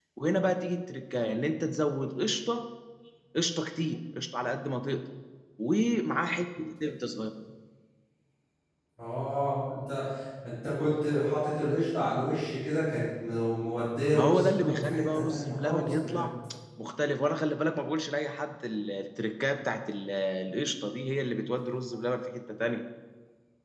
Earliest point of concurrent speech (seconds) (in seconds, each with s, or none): 14.1 s